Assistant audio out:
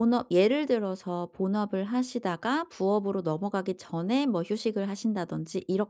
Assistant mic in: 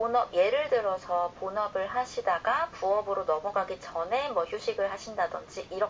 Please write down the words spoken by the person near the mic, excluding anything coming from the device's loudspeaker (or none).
none